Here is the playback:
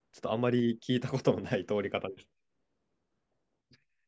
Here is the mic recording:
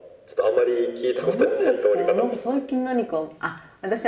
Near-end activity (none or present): present